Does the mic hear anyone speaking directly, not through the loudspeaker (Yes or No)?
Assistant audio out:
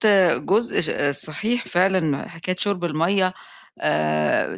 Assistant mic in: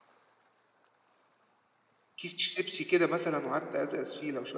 Yes